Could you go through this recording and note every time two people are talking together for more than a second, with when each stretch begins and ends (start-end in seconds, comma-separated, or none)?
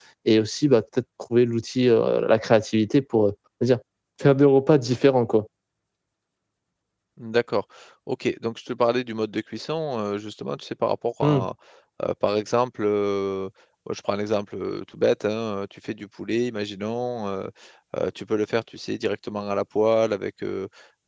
none